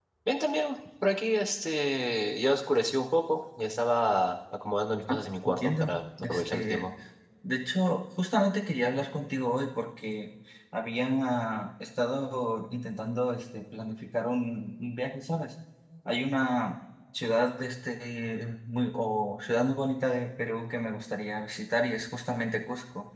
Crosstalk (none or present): present